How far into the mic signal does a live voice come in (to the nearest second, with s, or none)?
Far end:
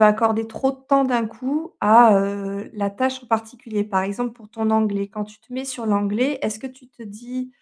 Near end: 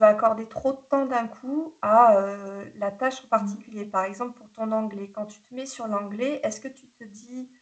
3 s